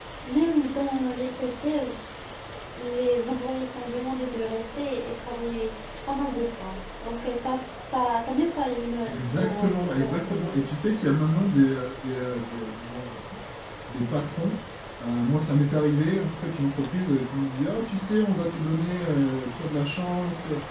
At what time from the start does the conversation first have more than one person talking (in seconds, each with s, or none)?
9.0 s